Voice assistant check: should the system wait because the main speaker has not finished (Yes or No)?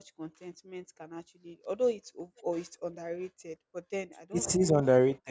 No